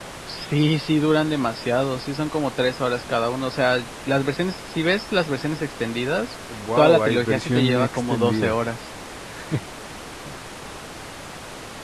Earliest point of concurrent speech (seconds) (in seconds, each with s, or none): 6.8 s